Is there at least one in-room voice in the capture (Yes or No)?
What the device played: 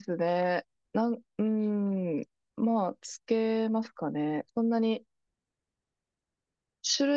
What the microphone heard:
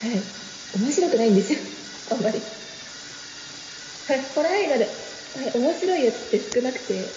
Yes